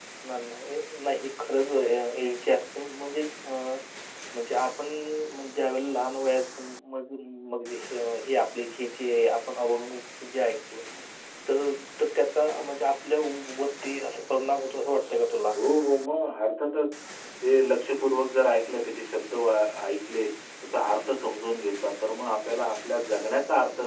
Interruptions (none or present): none